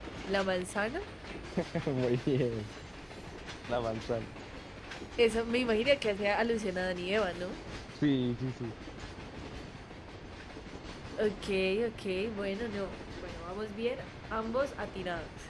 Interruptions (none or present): none